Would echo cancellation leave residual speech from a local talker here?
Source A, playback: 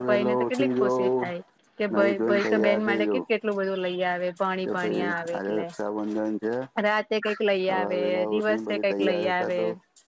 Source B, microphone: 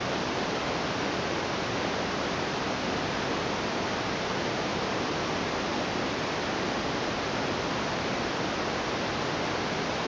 No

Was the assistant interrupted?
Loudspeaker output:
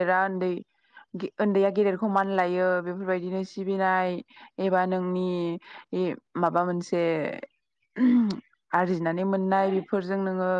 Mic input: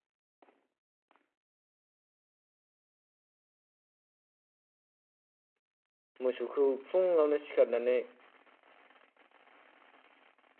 Yes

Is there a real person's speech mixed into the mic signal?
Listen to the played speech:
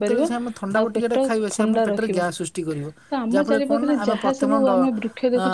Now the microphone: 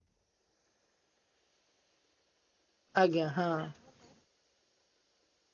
Yes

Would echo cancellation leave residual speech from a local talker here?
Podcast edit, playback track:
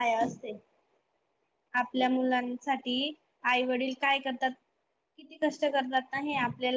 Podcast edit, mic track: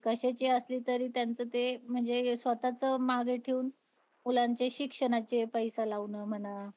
Yes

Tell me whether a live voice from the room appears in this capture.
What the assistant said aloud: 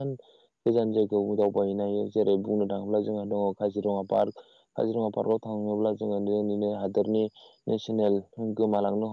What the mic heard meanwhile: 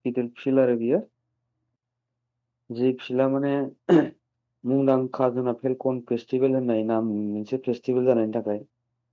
Yes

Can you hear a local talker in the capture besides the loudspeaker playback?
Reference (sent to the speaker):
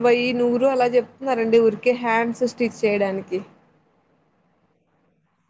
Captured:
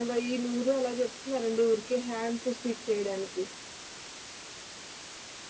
No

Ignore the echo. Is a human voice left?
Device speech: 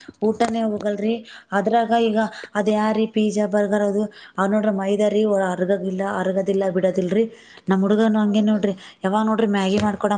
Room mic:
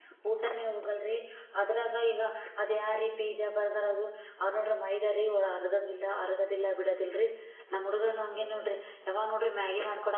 No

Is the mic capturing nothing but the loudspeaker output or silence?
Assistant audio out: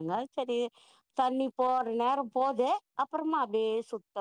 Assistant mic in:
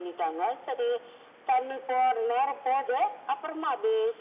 Yes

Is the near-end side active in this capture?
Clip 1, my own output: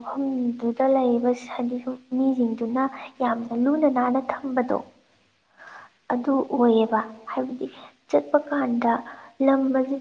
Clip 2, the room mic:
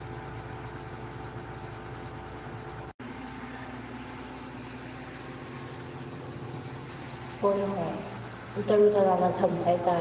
Yes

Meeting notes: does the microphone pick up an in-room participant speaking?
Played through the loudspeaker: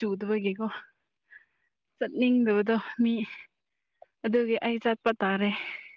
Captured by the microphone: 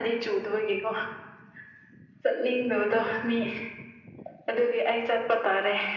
No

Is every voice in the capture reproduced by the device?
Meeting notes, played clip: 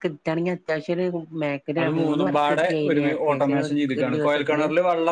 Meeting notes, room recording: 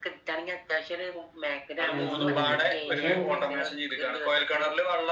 No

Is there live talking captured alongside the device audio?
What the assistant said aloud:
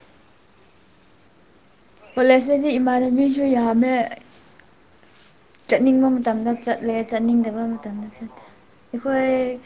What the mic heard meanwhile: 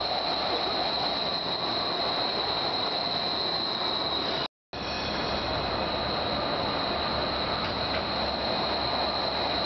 No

